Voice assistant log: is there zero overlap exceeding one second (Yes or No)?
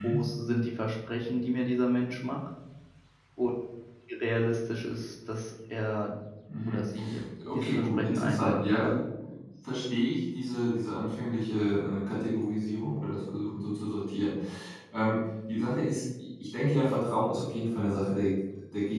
No